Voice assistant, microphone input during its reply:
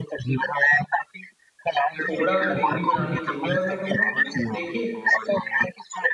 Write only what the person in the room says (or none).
थोड़ा हमें दूरी बनानी चाहिए और मैं कहूँगा कि देखिए,